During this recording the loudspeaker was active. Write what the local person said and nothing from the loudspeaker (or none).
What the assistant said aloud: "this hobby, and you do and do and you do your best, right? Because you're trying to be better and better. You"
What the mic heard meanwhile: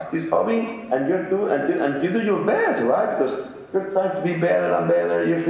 none